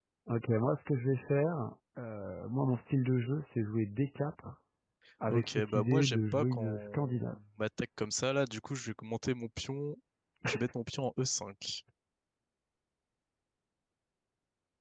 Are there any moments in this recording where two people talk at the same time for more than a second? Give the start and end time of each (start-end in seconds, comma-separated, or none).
5.3-7.3